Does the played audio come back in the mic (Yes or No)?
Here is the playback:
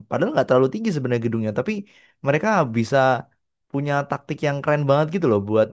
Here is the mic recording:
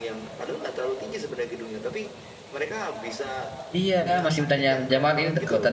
Yes